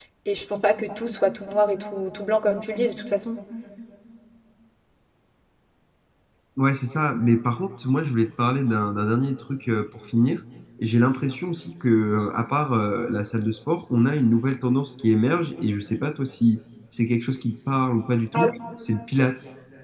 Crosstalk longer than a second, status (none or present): none